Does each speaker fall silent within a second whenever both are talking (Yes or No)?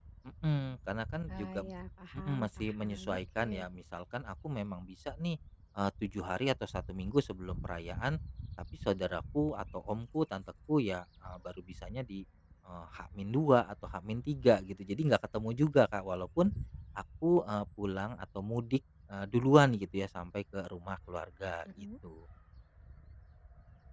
No